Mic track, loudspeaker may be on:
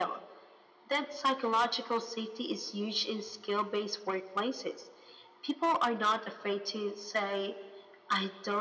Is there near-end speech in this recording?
No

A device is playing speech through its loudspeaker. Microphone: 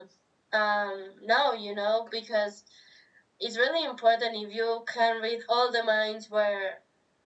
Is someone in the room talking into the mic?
No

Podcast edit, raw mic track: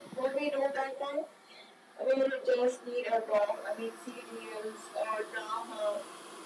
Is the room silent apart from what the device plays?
Yes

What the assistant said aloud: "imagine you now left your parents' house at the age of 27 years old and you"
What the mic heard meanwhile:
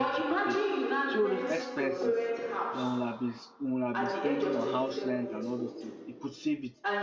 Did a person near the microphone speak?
Yes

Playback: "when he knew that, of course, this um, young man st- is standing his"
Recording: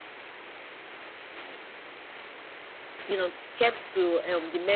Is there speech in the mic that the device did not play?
Yes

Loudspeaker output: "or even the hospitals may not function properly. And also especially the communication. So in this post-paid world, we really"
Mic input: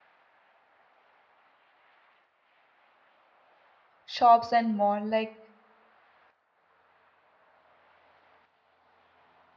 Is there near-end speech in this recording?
Yes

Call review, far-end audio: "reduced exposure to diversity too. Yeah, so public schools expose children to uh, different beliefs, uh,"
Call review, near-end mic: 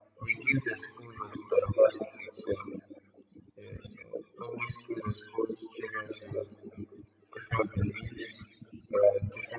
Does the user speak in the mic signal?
No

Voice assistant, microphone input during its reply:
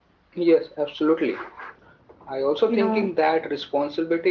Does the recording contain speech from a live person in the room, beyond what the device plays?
Yes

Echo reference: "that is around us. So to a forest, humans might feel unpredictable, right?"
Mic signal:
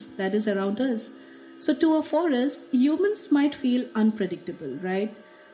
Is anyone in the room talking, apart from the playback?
No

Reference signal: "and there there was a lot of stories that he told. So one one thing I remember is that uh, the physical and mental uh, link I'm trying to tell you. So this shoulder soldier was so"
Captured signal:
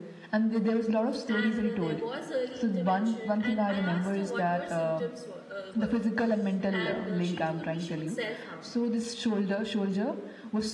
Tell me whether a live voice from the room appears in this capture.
Yes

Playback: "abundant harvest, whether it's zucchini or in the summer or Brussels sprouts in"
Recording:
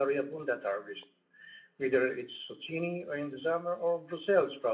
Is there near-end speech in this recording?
No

